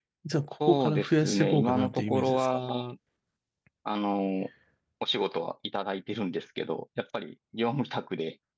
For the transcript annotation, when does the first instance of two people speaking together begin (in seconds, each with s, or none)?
0.7 s